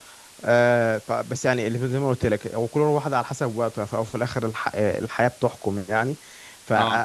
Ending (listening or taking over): listening